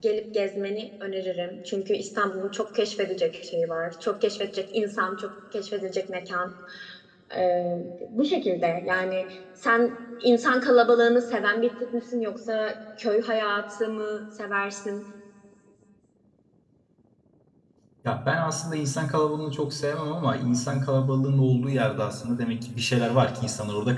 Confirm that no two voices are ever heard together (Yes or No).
Yes